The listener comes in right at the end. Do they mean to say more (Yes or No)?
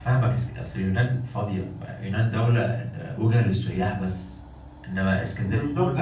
Yes